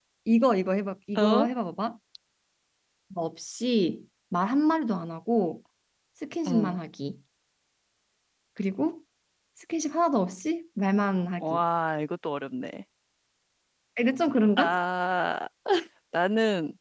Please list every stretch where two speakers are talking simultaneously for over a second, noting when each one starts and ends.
none

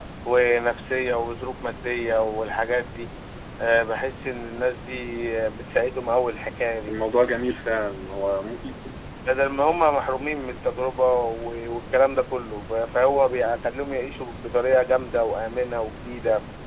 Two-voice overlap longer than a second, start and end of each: none

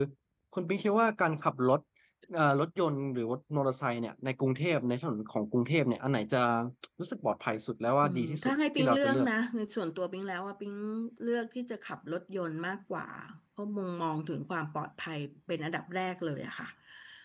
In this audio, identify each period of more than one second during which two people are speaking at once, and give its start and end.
8.0-9.3

